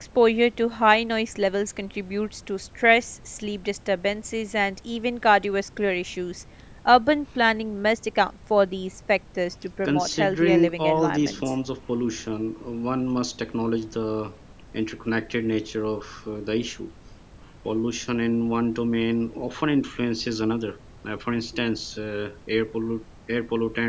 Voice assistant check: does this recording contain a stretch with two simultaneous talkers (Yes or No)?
Yes